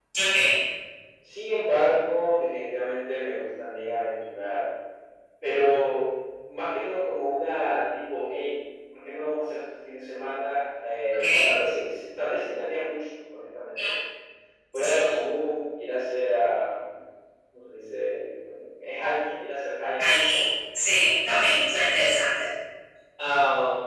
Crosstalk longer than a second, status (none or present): none